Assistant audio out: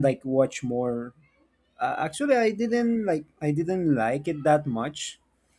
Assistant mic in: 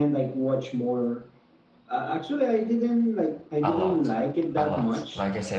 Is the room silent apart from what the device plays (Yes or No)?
No